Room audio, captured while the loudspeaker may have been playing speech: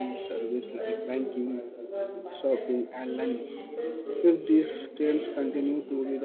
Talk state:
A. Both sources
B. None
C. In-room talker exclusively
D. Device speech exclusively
A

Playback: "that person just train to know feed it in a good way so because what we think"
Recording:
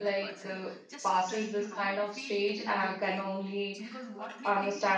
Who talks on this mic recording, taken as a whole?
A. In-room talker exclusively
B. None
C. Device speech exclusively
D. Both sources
D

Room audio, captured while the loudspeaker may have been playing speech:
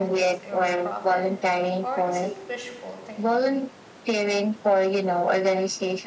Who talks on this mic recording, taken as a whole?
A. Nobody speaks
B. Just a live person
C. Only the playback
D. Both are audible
D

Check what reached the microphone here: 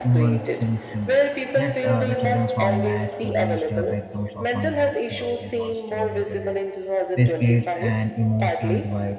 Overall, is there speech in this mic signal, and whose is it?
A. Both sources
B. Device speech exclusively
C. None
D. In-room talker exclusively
A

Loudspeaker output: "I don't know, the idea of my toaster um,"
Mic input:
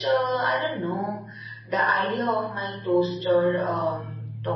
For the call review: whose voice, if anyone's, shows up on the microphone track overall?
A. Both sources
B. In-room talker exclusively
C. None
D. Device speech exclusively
D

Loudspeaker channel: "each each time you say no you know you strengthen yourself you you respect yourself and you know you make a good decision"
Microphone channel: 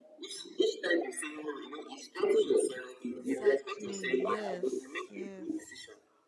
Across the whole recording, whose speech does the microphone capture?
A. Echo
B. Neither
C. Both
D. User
C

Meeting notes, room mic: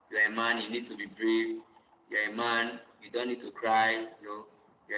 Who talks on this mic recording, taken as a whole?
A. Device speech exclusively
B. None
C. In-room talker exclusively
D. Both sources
A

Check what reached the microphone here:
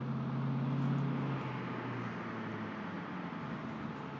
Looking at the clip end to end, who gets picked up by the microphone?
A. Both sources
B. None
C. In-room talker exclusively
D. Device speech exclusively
B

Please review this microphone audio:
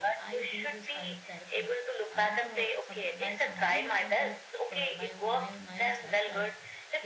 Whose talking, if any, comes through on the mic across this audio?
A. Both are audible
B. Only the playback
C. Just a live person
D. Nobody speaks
A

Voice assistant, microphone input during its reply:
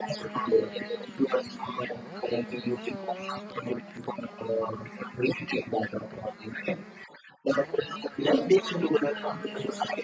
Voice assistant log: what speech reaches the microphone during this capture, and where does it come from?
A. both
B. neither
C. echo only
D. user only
C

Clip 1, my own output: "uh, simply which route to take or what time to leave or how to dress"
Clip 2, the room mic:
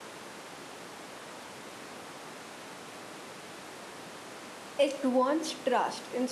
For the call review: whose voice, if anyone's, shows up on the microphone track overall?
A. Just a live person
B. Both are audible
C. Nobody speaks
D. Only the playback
A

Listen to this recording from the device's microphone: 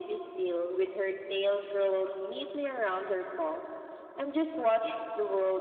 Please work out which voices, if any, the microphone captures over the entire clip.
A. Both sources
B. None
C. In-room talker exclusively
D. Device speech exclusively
D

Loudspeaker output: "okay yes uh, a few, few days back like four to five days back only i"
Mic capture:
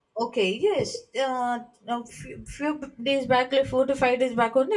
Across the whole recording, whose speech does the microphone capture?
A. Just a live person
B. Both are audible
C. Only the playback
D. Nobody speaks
C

